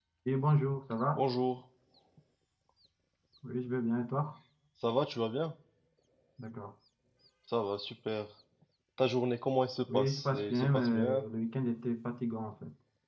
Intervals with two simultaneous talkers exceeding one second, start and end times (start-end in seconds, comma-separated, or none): 9.9-11.2